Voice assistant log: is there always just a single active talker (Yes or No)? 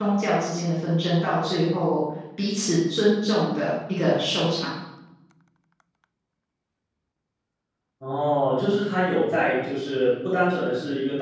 Yes